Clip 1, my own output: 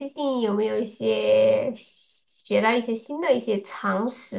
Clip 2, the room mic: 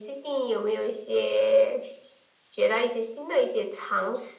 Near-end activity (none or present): none